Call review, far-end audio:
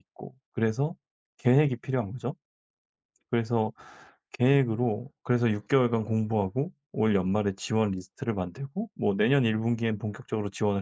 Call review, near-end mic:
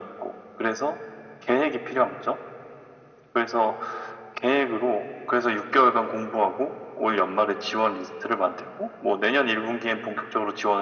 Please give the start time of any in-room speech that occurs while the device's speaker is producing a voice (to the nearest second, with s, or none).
none